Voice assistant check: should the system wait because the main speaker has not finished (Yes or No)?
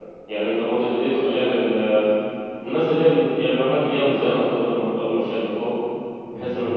Yes